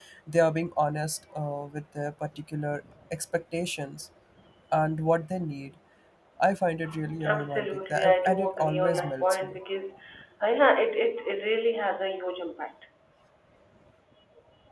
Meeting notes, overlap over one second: present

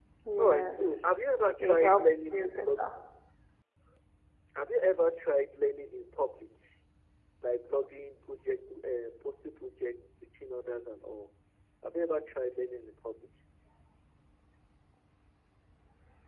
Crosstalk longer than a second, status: present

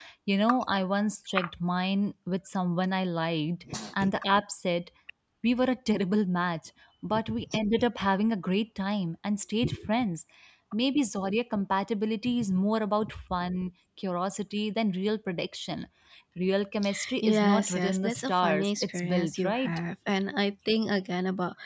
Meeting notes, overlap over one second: present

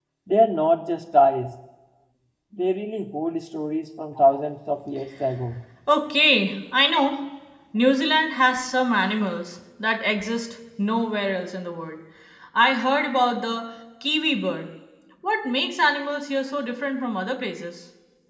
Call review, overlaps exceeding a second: none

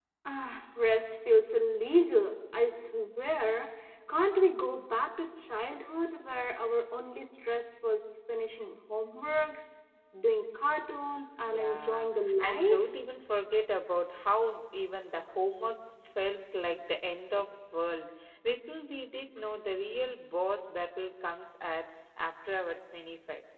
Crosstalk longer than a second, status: present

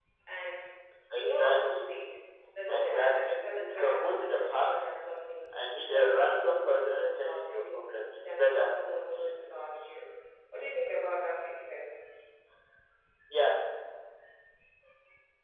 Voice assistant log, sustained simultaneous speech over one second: present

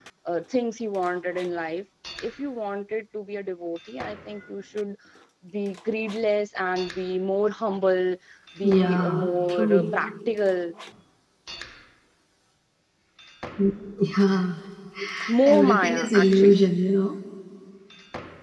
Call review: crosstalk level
present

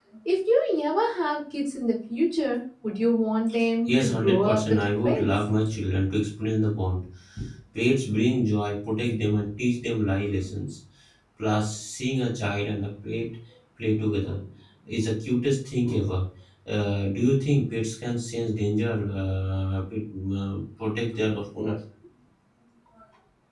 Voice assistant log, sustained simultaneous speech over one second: present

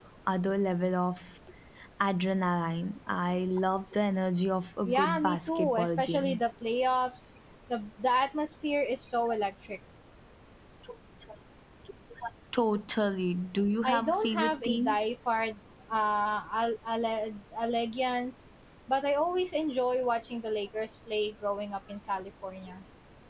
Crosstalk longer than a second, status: present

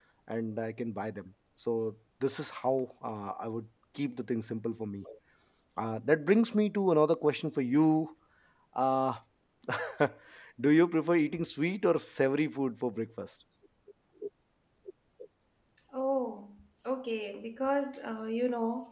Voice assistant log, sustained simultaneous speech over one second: none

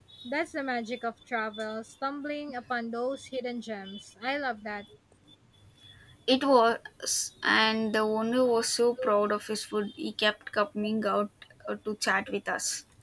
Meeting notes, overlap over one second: none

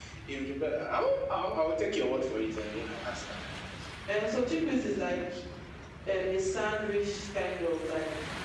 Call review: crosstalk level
none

